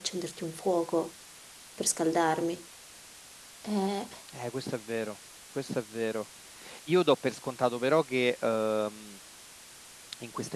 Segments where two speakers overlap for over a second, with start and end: none

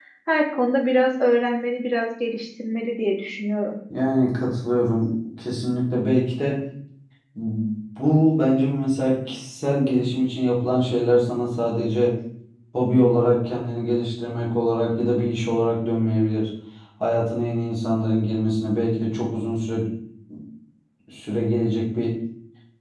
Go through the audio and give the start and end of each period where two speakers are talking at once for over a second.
none

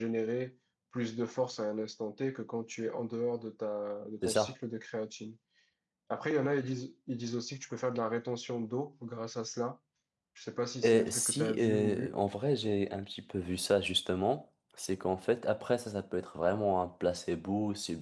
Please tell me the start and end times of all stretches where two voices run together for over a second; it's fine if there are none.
10.8-12.2

